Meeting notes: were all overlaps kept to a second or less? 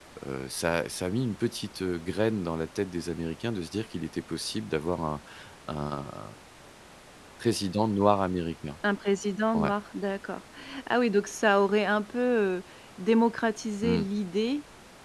Yes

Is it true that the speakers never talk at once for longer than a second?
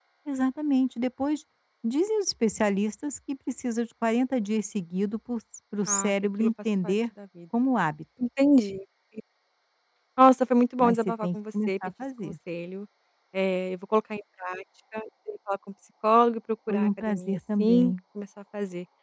No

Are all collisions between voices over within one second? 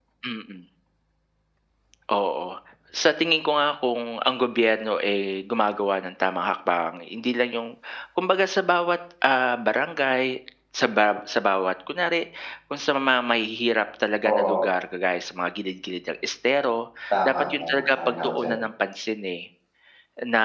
No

